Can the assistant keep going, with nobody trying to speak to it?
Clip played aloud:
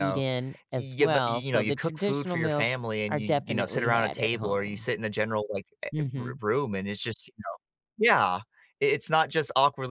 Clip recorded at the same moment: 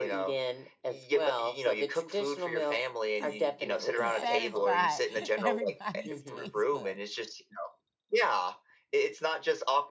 No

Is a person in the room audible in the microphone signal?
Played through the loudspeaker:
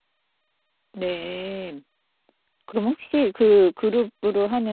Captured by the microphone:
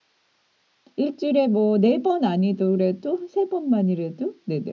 Yes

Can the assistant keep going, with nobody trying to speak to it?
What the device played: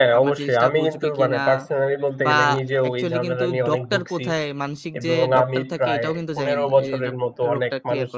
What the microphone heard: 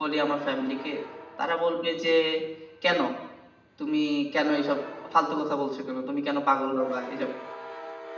No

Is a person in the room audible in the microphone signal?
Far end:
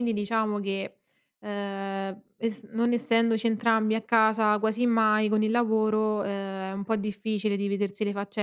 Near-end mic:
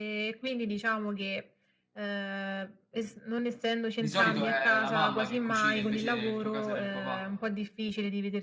Yes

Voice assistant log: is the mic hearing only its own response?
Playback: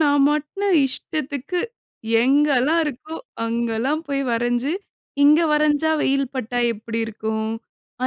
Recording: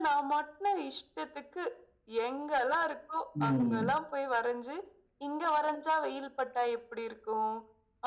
No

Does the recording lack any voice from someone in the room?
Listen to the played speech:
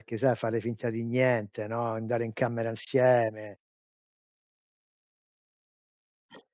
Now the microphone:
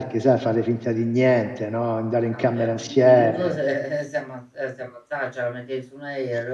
No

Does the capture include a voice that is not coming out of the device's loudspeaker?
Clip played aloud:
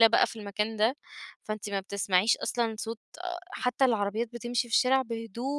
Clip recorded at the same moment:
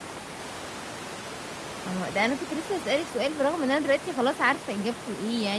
Yes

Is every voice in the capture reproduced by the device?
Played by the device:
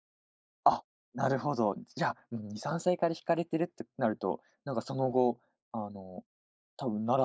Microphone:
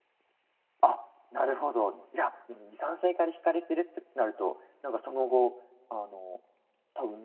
Yes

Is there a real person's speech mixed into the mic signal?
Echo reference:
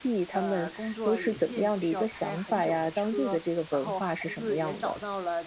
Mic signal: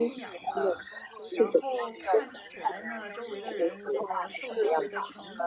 Yes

